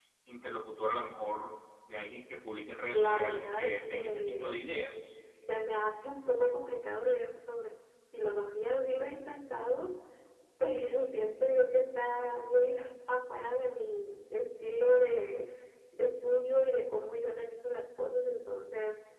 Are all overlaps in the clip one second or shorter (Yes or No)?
No